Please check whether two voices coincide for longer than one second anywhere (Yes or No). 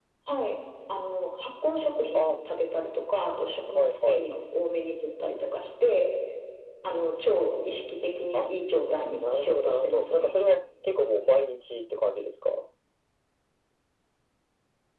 Yes